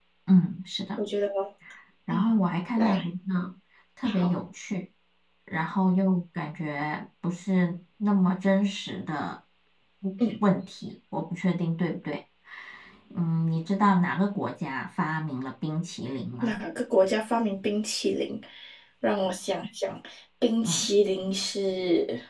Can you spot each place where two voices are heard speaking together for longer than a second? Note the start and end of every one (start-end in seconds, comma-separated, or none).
none